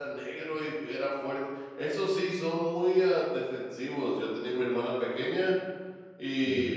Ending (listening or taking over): listening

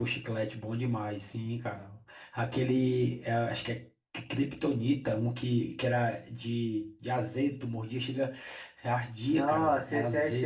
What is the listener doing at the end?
taking over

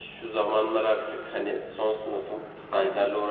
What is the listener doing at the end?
listening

